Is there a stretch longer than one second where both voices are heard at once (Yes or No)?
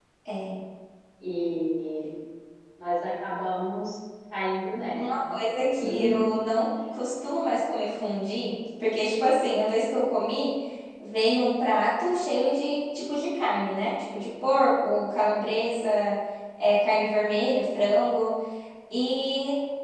No